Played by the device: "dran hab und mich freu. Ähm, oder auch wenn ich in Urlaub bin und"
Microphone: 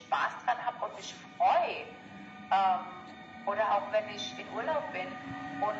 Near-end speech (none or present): none